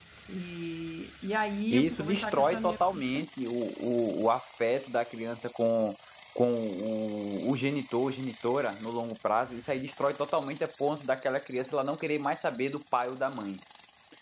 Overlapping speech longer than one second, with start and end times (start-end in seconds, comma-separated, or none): 1.7-3.2